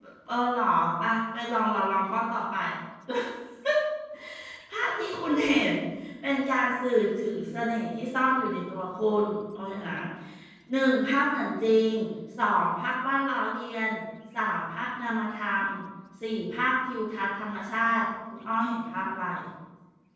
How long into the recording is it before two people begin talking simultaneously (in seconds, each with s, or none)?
none